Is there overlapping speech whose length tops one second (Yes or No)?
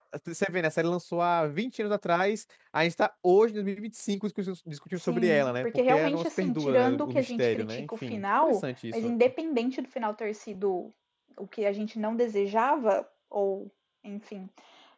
Yes